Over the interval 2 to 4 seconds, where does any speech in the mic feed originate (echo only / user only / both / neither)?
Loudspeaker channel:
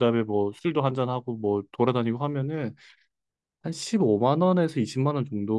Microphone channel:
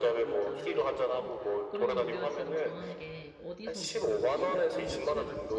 both